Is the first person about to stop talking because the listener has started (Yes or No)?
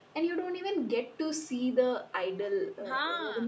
No